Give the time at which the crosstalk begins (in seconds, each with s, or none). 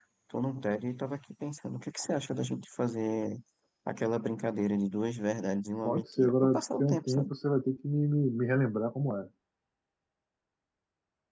5.8 s